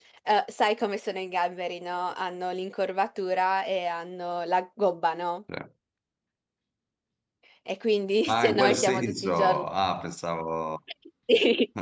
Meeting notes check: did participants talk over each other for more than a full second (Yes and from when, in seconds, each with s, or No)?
Yes, from 8.3 s